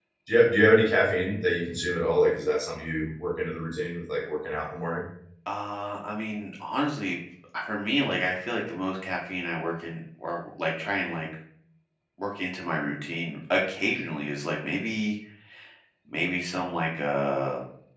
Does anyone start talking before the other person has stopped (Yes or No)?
No